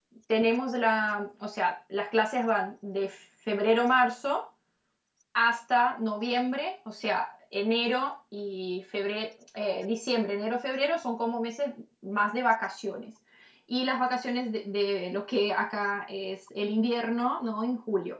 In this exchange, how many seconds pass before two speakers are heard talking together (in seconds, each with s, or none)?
none